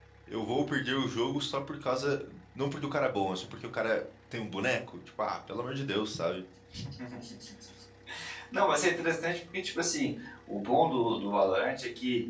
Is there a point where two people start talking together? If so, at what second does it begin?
none

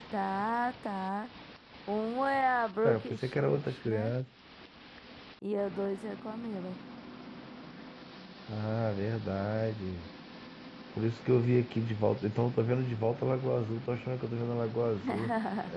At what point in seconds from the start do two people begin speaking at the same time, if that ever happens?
3 s

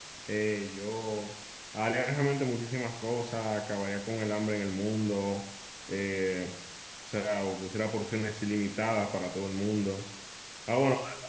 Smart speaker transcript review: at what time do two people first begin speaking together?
none

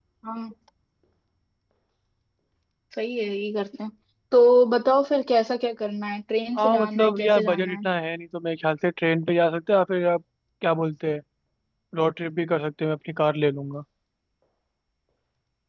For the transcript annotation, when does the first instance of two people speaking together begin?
7 s

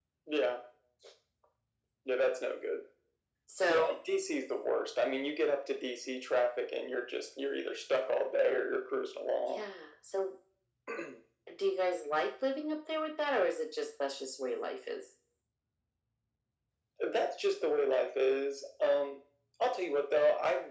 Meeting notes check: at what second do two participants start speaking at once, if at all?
none

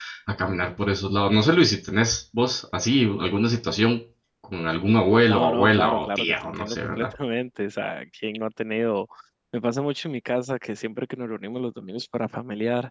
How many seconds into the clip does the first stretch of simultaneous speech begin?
5 s

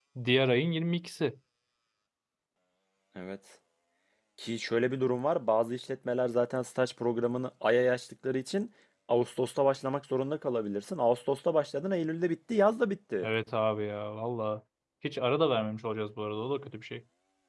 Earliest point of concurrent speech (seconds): none

